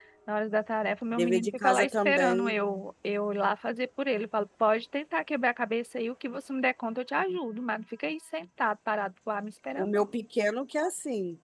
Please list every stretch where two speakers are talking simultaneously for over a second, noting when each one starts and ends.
1.1-2.5

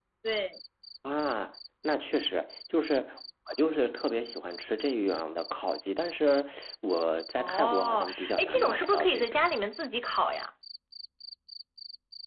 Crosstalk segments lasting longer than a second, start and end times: 7.4-9.4

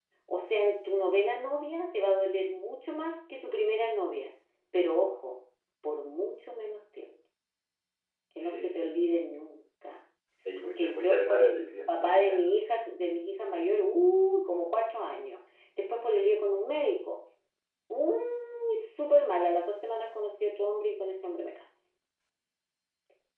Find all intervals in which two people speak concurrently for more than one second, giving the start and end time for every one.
10.6-12.4

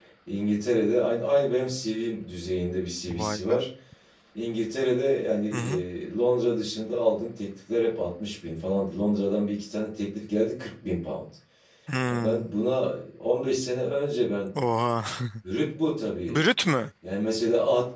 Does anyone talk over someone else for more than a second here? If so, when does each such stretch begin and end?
none

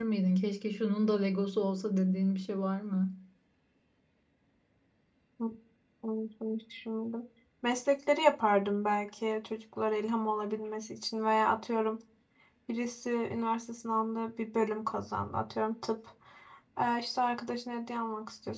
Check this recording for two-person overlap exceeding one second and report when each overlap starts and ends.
none

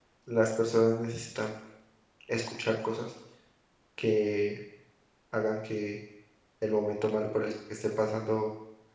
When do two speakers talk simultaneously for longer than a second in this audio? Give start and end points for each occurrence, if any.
none

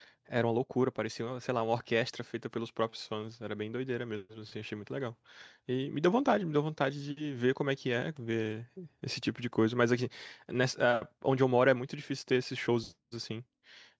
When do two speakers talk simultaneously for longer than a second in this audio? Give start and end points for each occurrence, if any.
none

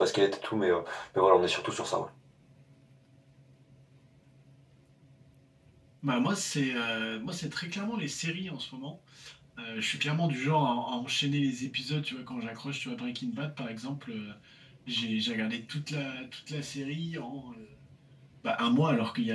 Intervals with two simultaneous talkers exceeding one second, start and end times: none

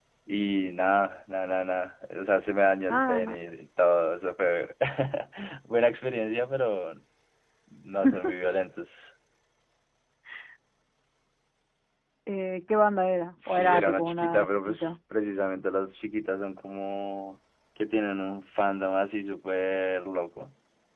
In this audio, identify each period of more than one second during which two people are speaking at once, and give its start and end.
13.5-15.0

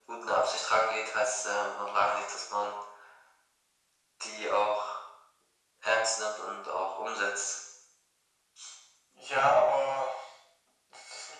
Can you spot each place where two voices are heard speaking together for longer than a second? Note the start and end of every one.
none

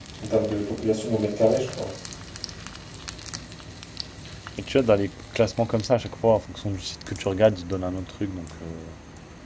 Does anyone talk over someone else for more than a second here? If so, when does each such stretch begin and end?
none

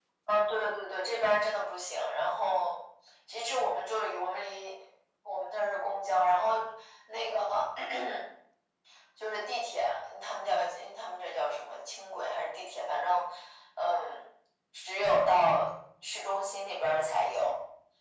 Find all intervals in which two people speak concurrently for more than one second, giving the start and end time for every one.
none

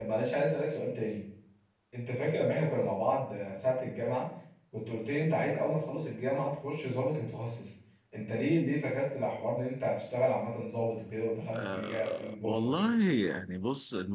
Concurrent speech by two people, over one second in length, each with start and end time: 11.5-12.9

